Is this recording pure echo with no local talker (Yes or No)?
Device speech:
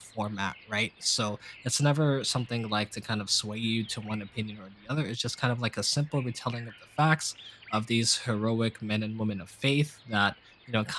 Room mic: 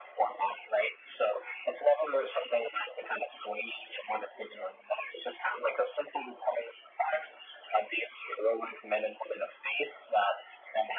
Yes